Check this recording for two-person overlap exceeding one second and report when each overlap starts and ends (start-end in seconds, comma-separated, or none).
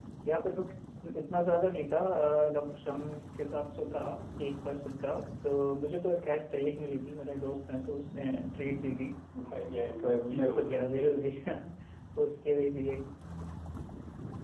10.0-11.2